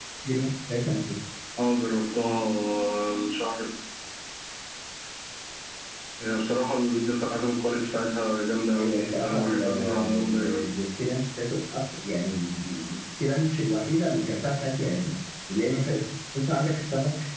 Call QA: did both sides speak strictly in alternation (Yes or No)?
No